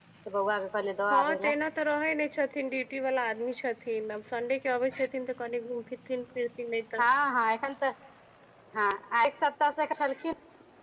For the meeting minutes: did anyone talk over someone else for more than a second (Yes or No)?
No